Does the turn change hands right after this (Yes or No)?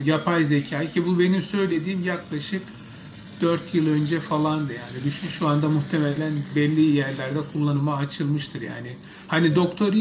No